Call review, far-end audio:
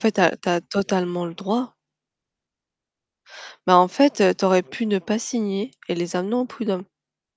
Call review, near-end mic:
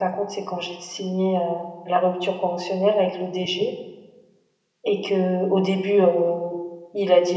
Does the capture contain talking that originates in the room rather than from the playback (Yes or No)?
Yes